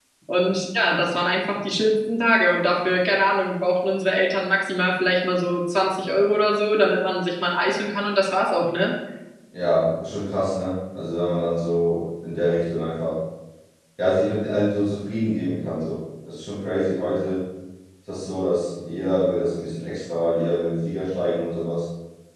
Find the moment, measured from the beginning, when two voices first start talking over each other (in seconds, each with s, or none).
none